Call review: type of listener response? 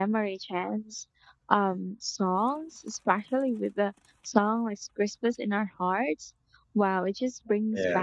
listening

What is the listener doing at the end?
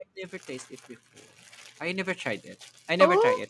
taking over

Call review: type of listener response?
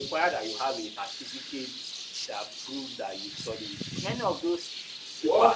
taking over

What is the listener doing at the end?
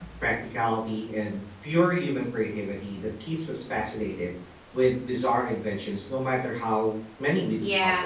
taking over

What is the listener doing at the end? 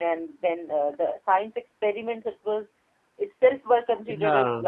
listening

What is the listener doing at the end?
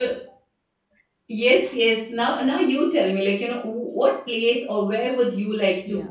taking over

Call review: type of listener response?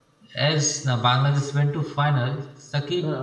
listening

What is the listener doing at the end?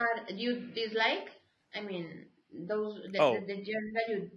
listening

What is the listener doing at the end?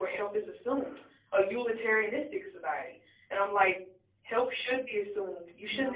listening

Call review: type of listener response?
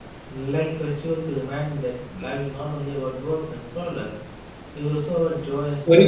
taking over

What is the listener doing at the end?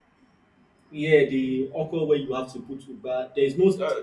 listening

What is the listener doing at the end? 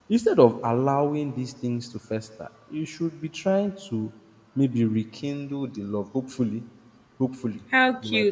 listening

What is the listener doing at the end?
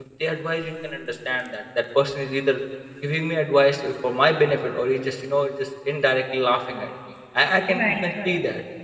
listening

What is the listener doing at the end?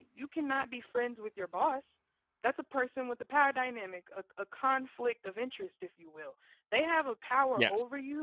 listening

